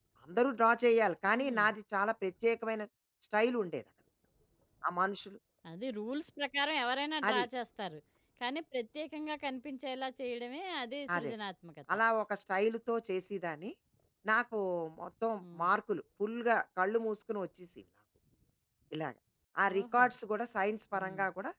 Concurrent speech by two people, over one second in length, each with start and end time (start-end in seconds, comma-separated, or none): none